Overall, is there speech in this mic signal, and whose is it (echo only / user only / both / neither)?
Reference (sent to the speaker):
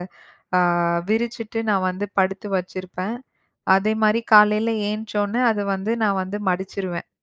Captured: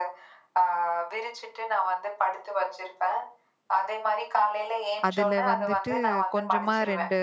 both